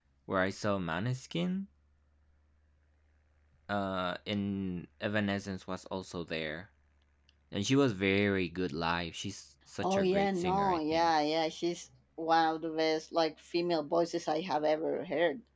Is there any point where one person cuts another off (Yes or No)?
Yes